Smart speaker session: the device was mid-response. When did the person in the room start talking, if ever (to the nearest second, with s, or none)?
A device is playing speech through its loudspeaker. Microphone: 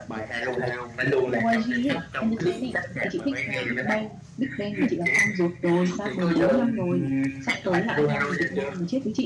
1 s